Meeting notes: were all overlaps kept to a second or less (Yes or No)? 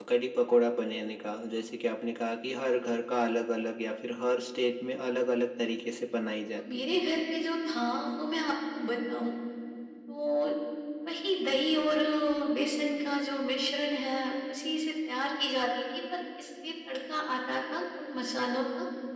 Yes